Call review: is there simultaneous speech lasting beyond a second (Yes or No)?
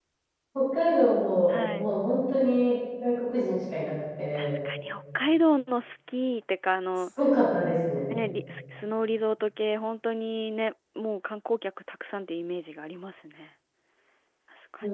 No